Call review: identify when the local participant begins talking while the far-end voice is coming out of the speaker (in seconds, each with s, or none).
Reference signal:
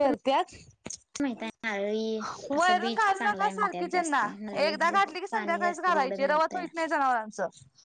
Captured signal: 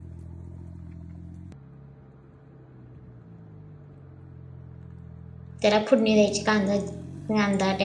5.6 s